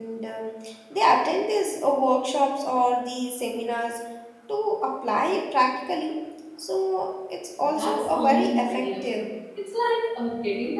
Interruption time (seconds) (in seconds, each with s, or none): 7.6 s